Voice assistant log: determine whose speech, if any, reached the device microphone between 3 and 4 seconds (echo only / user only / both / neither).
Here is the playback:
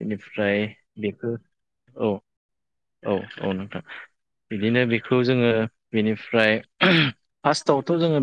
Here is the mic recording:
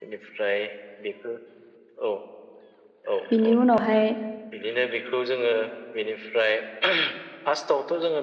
both